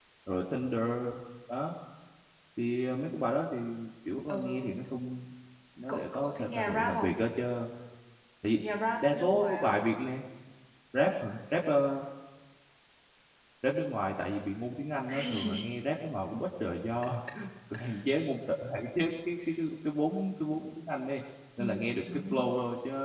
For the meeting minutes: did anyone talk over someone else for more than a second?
Yes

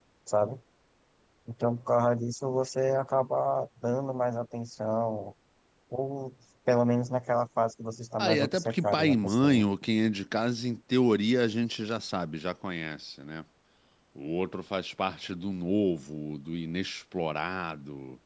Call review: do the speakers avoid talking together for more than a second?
No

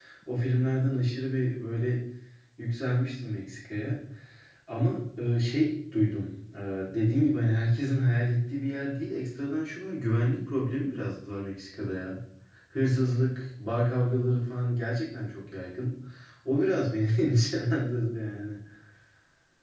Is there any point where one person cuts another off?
No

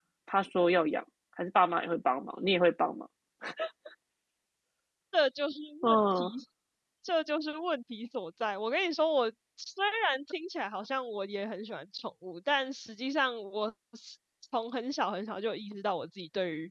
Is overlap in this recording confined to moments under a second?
Yes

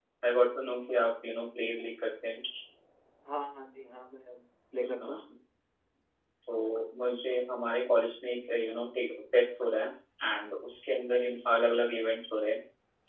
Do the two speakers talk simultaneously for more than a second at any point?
No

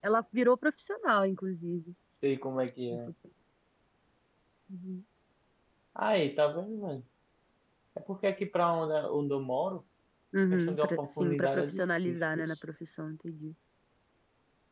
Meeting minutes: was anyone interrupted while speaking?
Yes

